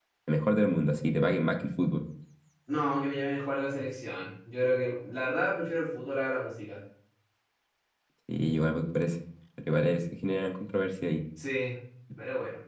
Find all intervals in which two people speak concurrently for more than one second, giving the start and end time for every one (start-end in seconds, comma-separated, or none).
none